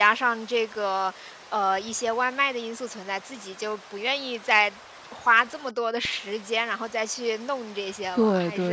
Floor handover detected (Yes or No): Yes